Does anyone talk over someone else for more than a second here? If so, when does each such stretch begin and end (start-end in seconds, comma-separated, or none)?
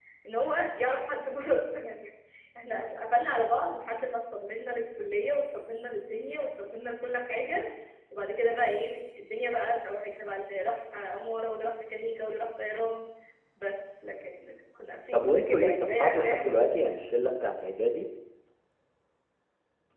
15.1-16.8